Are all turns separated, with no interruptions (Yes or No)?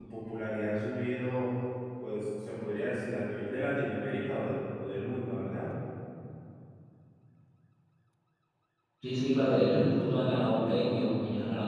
No